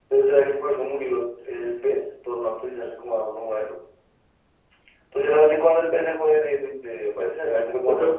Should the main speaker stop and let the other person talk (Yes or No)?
Yes